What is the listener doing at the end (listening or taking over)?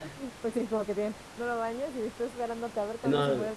taking over